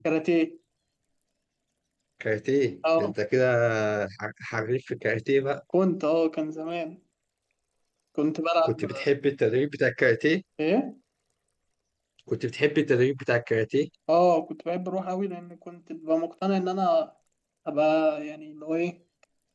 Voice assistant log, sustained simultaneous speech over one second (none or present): none